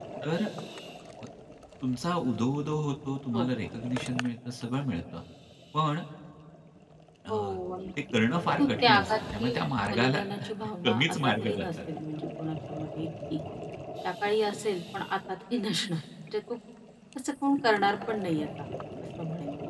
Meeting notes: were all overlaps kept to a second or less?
No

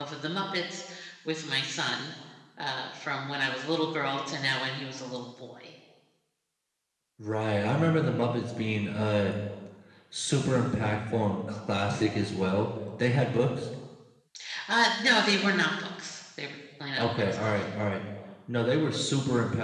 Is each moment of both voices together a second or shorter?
Yes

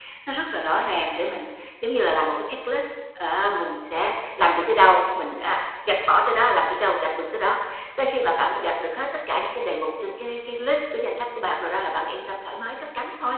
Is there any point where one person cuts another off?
No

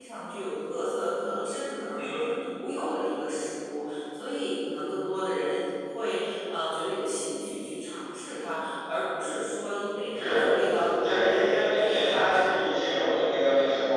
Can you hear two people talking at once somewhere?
Yes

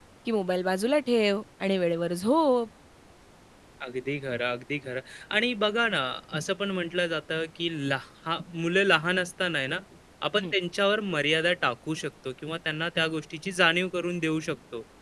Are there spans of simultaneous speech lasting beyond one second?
No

